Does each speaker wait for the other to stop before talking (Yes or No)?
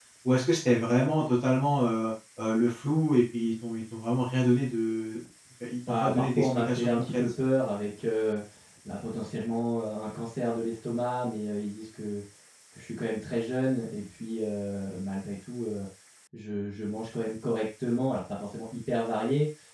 No